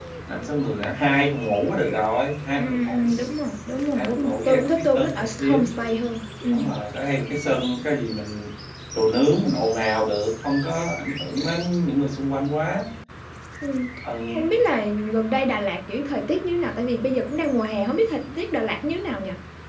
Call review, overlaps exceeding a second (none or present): present